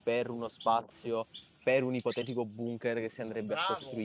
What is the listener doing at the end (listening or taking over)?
taking over